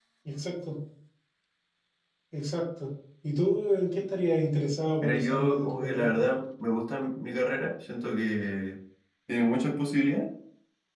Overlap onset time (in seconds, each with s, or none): 5.0 s